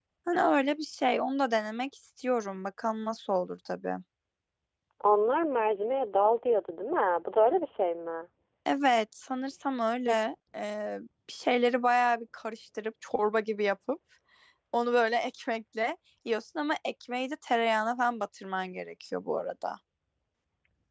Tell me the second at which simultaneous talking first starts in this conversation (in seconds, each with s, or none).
none